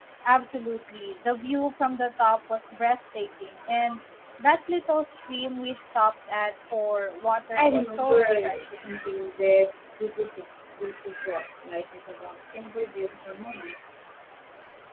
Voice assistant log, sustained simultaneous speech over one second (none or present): present